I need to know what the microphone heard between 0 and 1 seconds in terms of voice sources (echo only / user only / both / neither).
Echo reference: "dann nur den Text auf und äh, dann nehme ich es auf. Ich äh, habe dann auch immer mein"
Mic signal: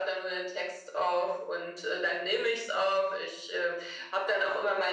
echo only